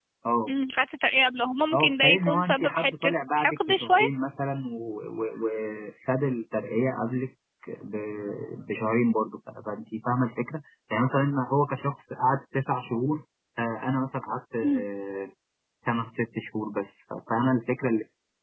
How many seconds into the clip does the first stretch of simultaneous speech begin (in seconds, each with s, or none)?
1.7 s